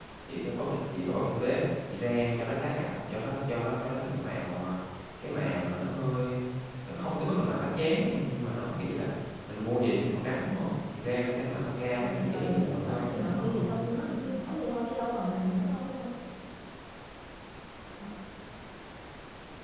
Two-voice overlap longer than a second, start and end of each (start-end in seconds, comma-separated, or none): 12.0-13.7